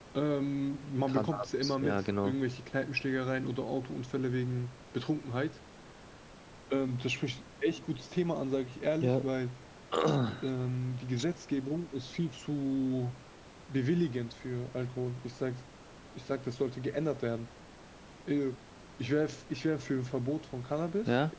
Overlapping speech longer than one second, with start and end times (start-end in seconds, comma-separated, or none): 1.1-2.4